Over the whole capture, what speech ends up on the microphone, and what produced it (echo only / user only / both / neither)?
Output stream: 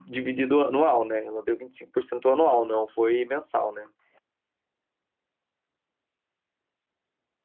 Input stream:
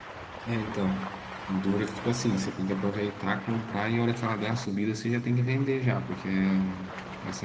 user only